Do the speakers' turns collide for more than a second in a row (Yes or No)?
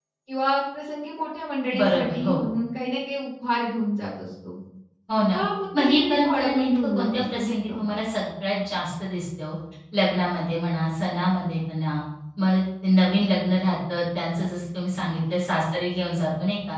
Yes